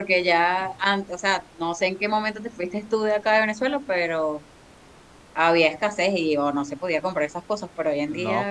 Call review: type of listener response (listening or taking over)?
taking over